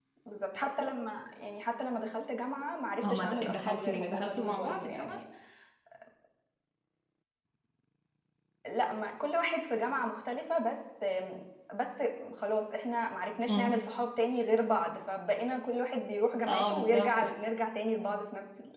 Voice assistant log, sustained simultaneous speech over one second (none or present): present